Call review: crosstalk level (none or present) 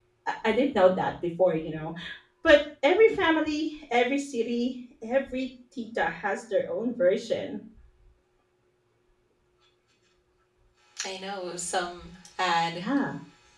none